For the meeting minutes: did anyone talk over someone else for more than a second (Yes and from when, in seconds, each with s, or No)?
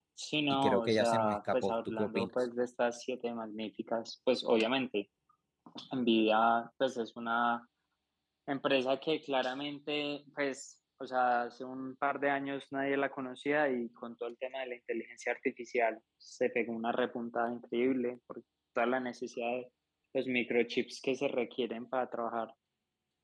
Yes, from 0.5 s